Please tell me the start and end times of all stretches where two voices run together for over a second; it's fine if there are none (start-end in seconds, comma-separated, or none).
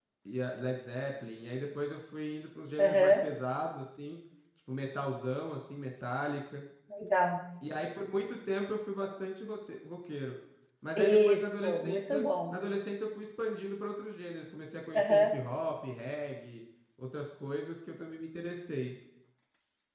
11.0-12.5